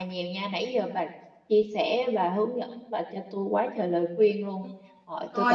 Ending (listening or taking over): taking over